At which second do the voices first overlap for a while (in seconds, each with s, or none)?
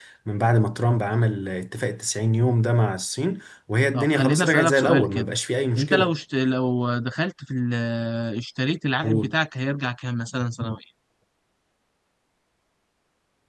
3.9 s